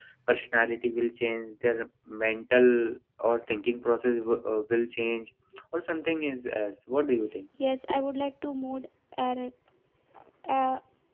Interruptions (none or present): none